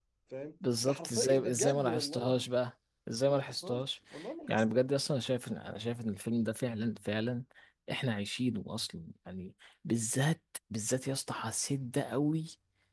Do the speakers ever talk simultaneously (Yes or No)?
Yes